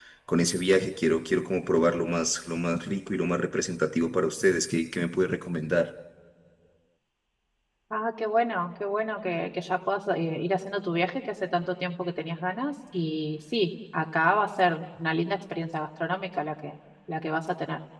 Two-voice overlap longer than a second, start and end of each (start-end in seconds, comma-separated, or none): none